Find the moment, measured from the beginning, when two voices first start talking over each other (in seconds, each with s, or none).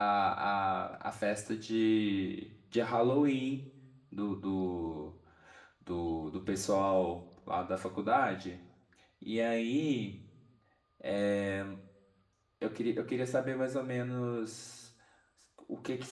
none